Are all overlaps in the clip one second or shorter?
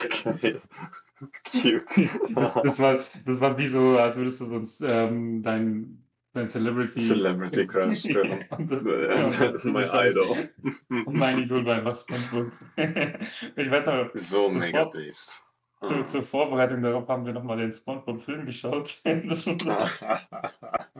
No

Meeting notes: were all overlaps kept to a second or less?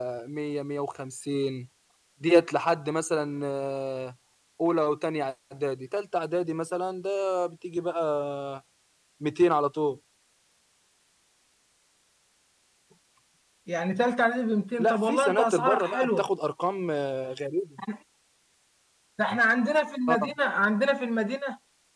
No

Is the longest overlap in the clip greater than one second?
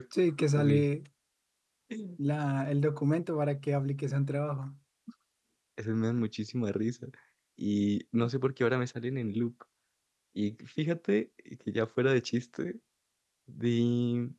No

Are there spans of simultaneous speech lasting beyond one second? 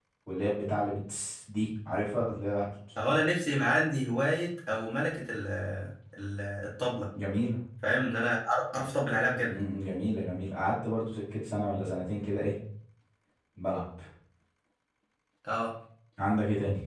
No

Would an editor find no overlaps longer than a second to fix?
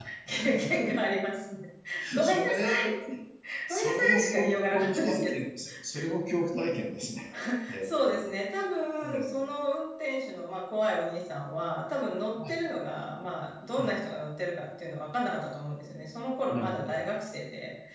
No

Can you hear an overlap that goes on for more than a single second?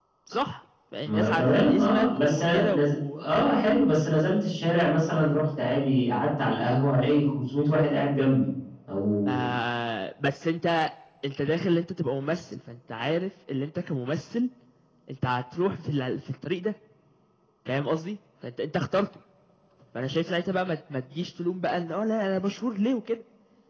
Yes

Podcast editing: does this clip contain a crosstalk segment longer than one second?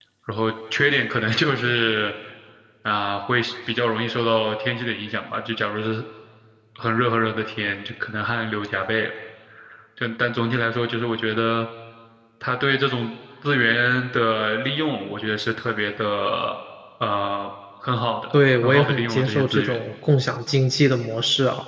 Yes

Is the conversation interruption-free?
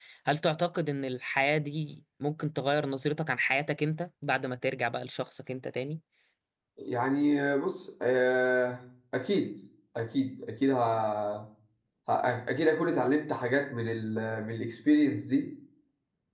Yes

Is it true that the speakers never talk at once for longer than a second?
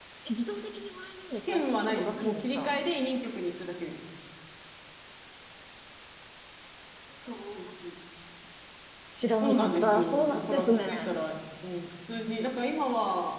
No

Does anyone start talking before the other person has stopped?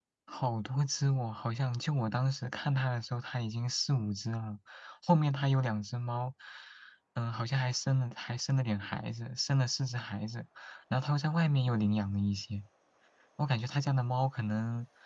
No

